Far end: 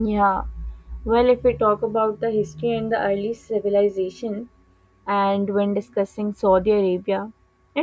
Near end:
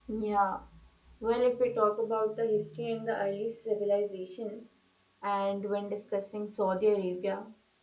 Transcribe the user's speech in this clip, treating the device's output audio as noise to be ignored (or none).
none